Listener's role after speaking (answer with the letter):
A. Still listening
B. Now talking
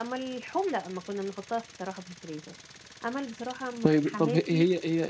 B